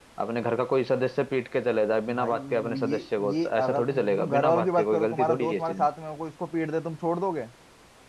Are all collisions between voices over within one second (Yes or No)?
No